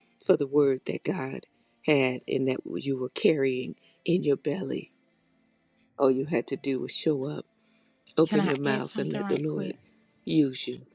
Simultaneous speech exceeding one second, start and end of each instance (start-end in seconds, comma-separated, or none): 8.2-9.7